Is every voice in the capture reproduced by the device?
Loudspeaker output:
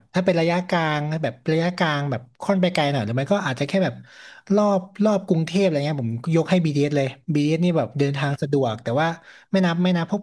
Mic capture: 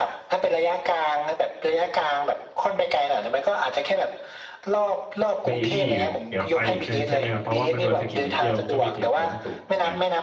No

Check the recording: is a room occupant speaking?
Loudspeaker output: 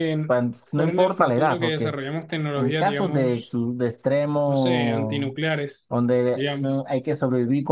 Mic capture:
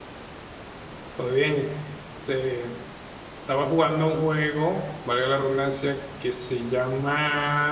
Yes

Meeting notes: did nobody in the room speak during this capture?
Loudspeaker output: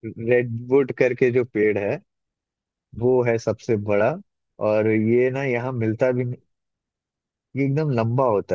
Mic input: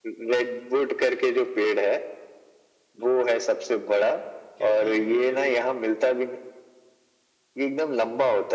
No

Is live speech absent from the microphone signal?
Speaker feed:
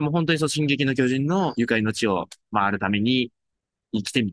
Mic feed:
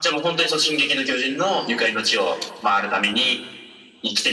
Yes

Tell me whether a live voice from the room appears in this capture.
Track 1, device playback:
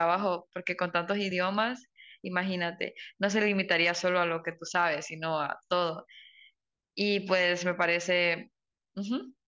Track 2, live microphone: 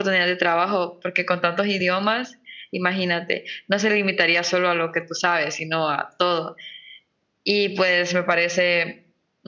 No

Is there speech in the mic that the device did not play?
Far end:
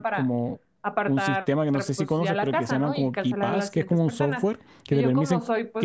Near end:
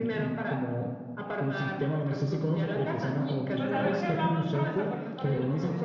Yes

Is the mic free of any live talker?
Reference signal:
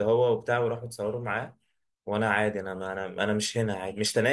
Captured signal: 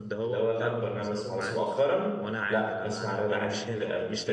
No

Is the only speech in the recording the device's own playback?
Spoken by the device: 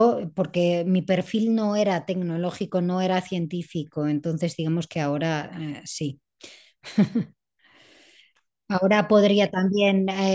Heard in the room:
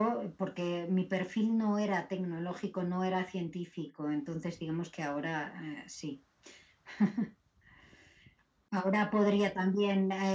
Yes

